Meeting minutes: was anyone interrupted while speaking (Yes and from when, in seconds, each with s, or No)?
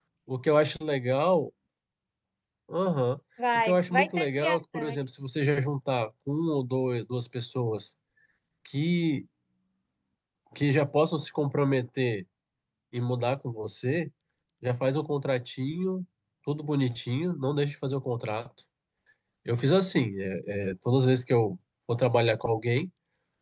Yes, from 3.6 s